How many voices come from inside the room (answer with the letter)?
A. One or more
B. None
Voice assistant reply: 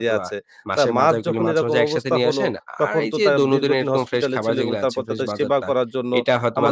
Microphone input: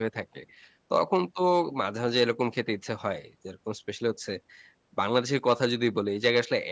A